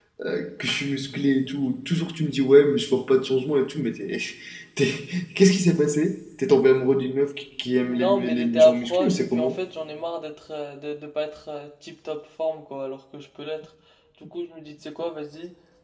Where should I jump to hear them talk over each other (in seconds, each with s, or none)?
7.9 s